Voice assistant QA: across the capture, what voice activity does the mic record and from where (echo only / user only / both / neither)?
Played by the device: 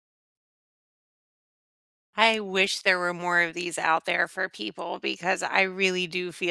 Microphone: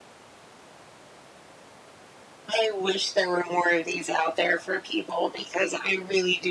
echo only